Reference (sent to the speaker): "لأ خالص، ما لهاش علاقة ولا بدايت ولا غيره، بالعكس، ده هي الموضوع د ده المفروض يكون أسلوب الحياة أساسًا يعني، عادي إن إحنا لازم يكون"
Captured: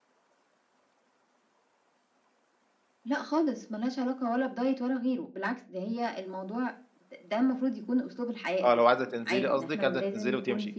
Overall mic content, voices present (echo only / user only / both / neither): both